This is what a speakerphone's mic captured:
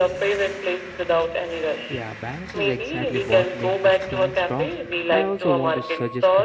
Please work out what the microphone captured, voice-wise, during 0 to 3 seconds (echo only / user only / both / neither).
both